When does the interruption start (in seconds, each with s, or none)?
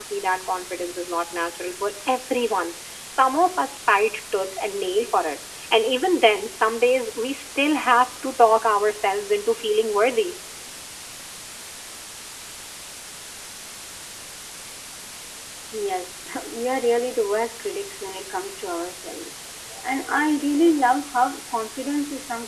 none